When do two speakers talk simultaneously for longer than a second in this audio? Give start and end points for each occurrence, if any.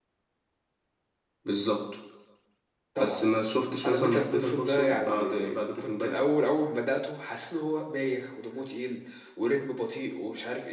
3.8-5.3

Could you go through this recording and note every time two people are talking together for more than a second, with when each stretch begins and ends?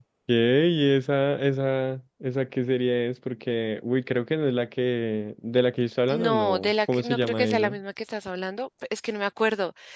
6.1-7.8

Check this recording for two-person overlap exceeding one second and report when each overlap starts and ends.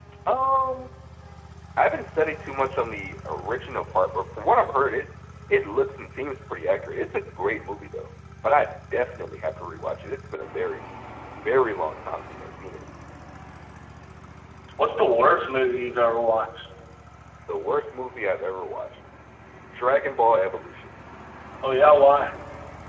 none

